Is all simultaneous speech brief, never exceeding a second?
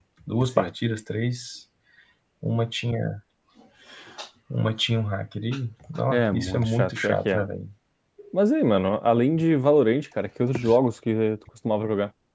No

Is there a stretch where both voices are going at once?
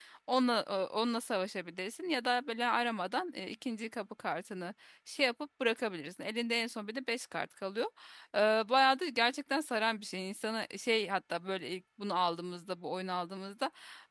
No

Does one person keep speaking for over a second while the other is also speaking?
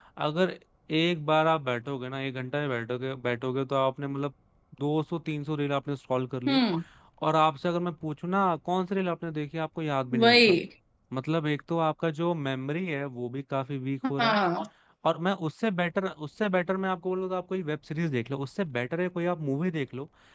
No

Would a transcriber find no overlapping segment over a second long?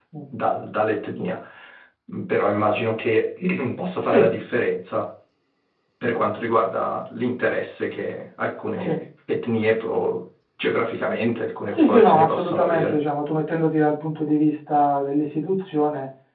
No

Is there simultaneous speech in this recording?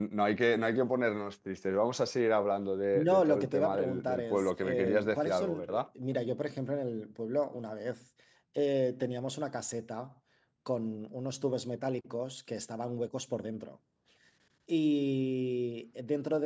Yes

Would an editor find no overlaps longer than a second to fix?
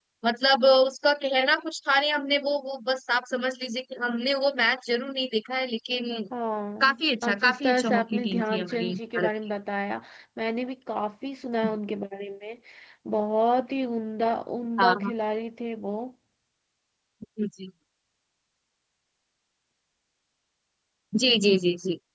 No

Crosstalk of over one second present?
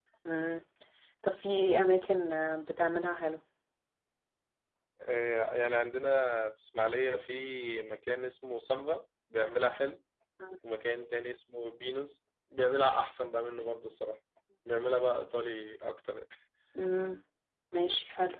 No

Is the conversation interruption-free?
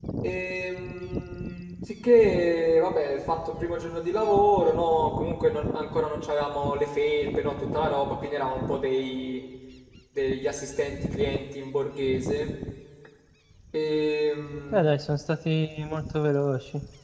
Yes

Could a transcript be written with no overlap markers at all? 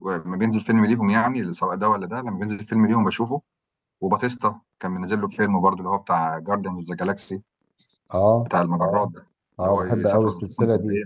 No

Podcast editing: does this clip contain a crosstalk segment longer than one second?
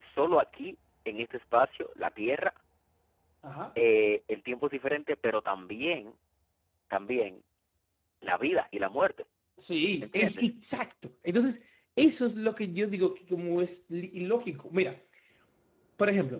No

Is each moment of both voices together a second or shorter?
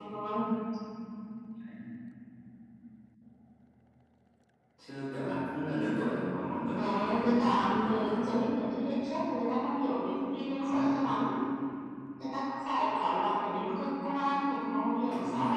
No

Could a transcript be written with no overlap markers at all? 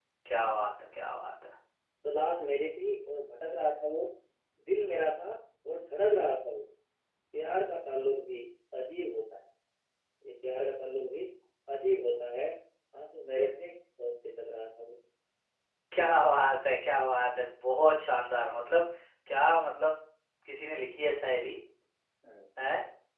Yes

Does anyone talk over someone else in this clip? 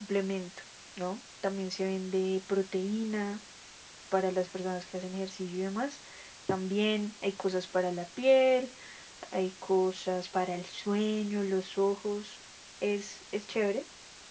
No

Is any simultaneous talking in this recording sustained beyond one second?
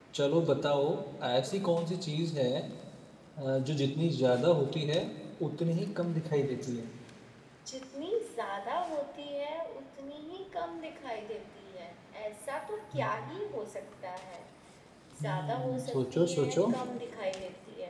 Yes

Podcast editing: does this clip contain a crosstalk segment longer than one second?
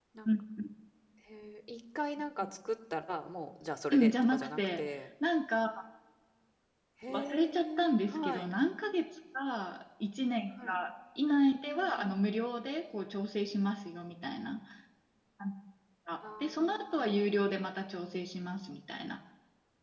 Yes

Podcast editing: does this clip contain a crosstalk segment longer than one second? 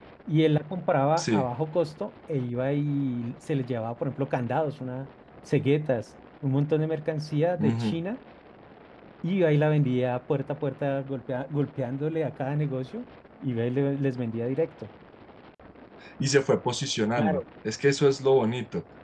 No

